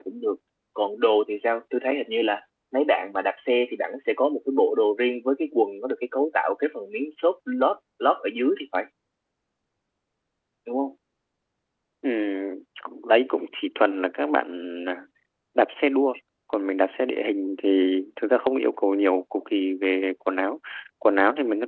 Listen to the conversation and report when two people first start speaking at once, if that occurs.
none

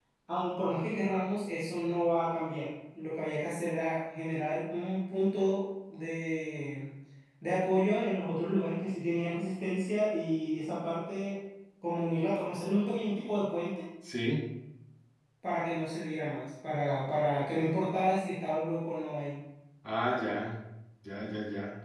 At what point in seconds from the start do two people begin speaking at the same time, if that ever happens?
none

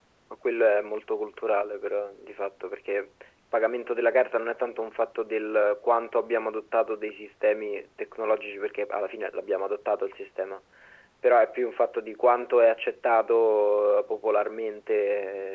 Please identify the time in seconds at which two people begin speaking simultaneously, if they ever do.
none

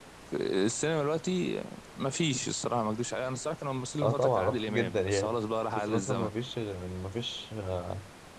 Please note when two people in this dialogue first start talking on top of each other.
4.0 s

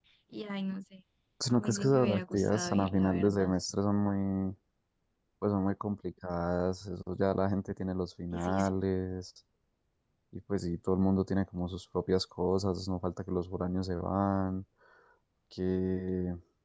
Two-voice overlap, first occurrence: 1.5 s

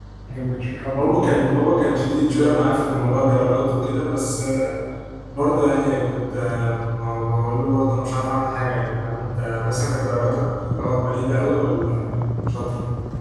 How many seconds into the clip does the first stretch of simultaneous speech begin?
0.9 s

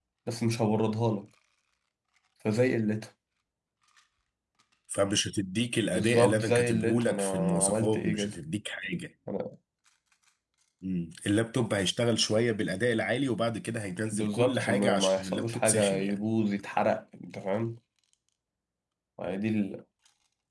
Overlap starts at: 5.9 s

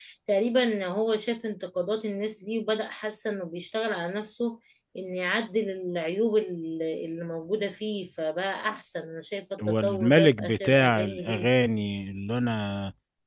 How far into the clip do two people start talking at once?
9.6 s

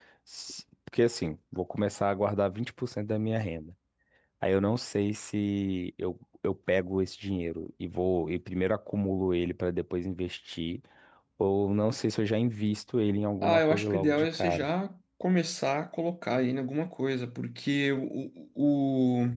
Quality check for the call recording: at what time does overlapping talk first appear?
13.4 s

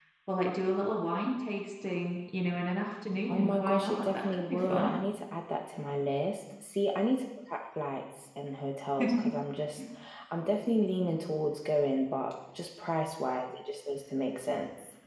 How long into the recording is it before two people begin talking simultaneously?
3.3 s

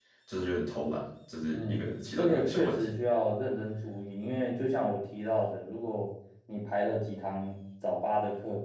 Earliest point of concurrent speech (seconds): 1.5 s

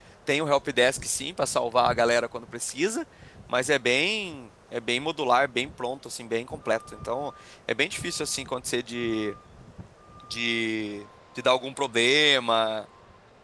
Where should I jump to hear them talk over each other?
none

